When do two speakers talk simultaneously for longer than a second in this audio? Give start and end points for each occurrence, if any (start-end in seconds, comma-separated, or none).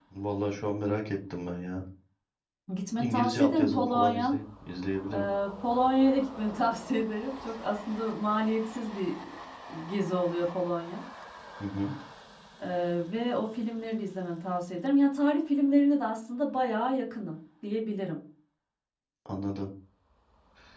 3.0-4.4